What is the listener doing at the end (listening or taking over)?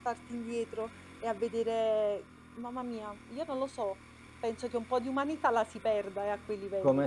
taking over